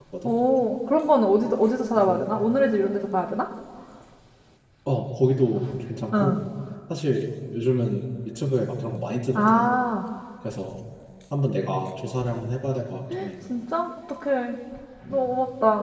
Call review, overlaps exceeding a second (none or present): none